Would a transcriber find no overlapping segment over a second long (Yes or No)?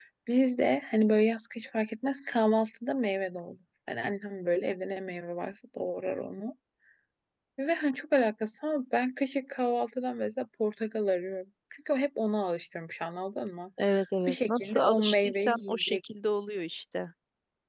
No